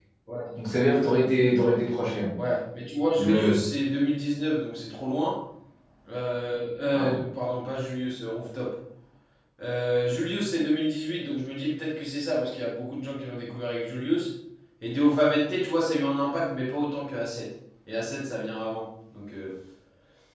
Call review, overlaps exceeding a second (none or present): none